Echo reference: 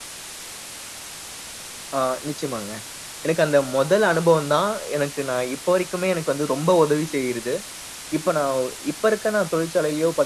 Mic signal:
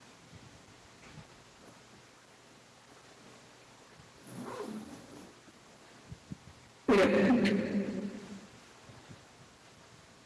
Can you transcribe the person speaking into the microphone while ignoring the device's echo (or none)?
சிறப்பு.